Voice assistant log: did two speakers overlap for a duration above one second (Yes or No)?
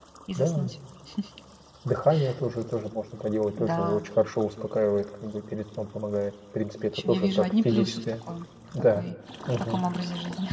Yes